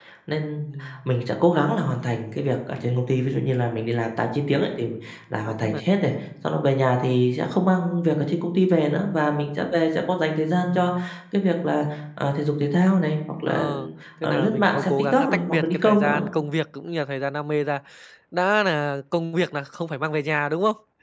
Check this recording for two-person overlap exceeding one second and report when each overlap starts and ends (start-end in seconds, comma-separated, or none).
14.2-16.2